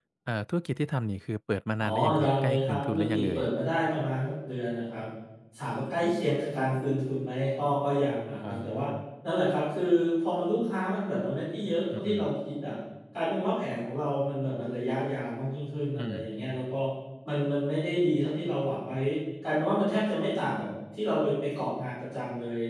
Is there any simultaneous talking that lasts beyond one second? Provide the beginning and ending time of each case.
1.8-3.4

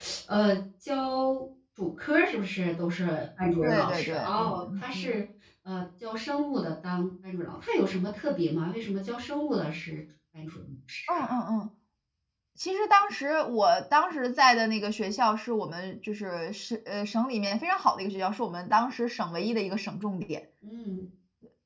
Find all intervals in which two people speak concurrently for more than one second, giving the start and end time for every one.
3.6-5.2

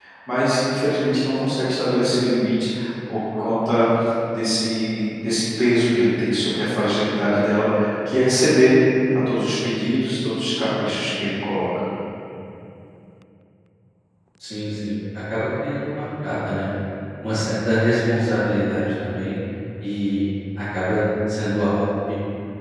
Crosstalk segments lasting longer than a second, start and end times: none

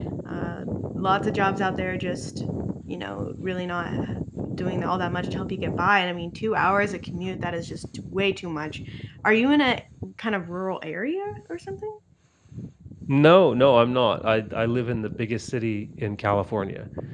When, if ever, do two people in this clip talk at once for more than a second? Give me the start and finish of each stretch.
none

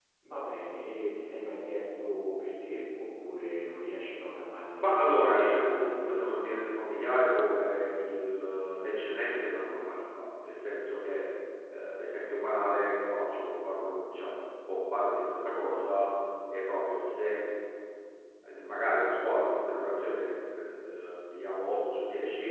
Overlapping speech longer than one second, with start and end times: 4.8-6.7

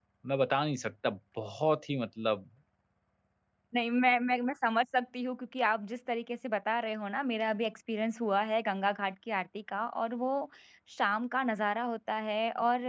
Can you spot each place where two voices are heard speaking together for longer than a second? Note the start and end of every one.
none

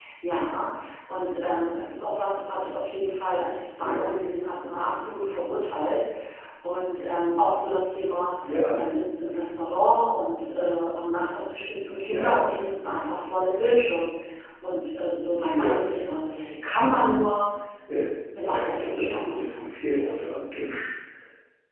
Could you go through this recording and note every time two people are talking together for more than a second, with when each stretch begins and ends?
18.4-19.6

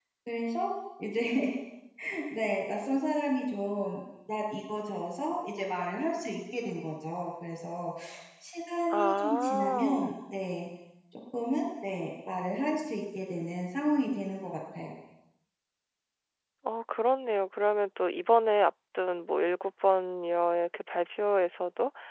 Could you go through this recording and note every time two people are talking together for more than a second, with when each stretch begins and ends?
8.9-10.1

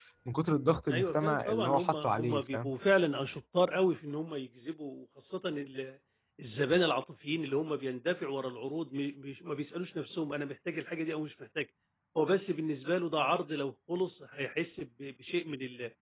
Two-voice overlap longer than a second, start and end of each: 0.9-2.7

